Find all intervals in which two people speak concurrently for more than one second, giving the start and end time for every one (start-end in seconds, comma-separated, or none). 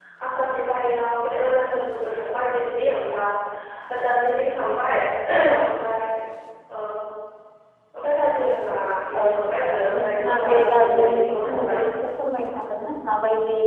10.0-11.8